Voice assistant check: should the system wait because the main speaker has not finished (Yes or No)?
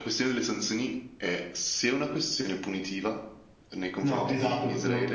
No